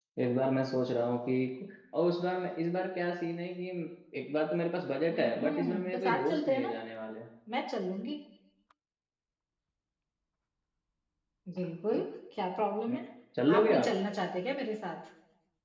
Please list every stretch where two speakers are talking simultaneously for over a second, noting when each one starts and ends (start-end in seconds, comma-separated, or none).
5.1-6.7